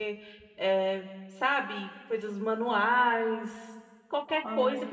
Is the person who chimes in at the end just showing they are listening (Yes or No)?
Yes